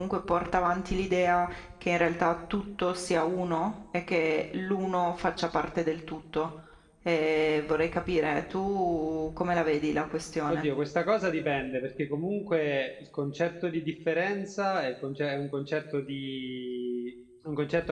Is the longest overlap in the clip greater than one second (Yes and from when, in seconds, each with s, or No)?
No